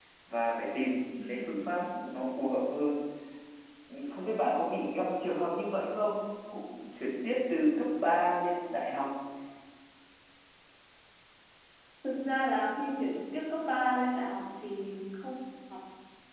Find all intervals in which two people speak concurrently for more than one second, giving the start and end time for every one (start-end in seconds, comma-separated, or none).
none